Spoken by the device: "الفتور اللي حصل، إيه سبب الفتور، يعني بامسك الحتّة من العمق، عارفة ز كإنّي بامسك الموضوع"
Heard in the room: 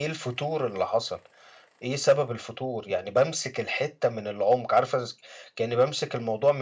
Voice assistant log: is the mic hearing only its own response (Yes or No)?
Yes